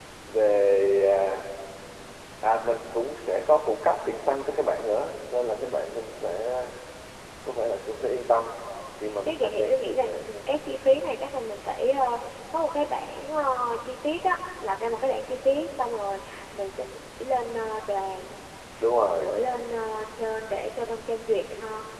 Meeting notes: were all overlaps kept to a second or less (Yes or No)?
No